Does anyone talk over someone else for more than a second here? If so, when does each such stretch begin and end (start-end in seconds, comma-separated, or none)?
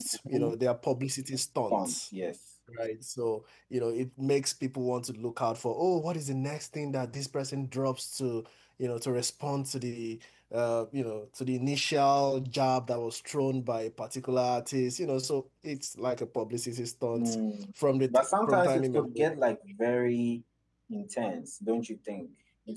18.1-19.3